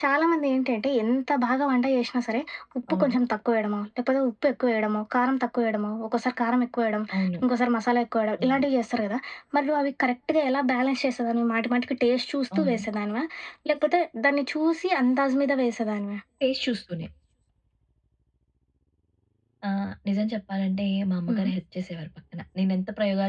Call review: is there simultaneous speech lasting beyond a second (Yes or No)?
No